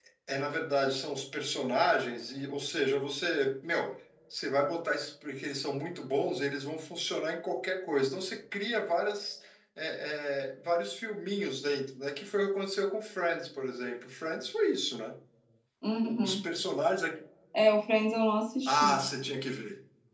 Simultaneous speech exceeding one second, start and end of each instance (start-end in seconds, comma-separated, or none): none